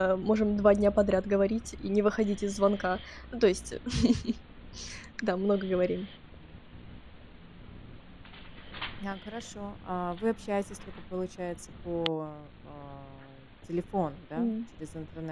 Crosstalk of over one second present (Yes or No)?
No